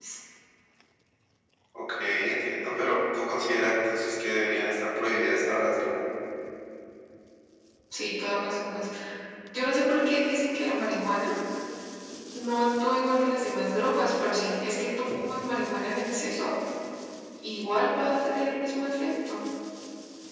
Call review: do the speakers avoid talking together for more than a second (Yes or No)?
Yes